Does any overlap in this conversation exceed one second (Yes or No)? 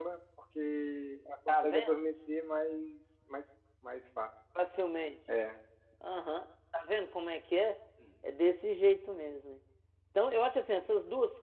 No